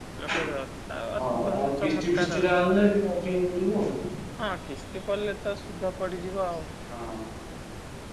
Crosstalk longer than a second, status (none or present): present